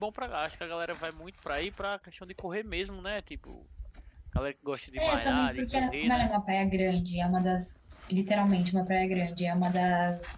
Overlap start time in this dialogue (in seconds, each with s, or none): 5.0 s